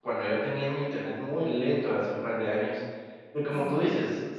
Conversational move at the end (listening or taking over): listening